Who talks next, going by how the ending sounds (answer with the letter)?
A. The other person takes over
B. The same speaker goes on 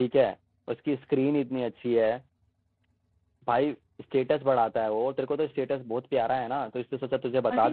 A